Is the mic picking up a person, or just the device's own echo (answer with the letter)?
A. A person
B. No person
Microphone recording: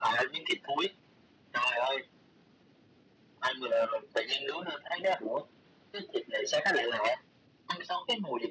B